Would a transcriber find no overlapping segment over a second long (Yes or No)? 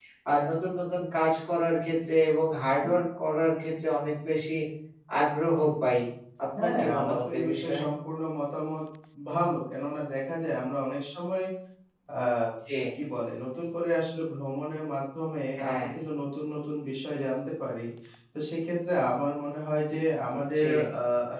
No